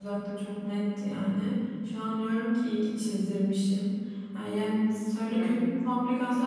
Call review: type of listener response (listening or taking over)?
listening